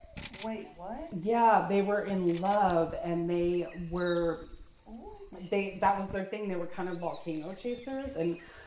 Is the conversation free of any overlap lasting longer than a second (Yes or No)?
Yes